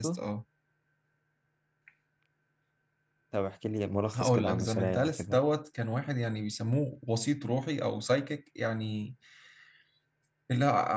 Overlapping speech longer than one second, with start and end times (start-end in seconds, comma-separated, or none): 4.2-5.4